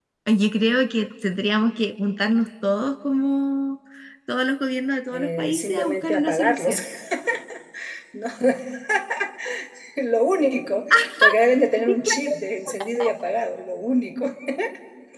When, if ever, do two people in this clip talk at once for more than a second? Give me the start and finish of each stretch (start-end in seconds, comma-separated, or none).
5.1-6.8